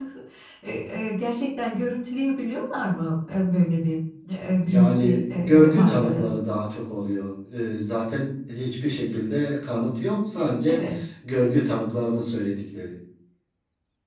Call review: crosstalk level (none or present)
present